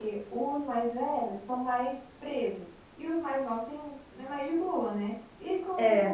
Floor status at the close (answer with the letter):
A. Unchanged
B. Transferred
A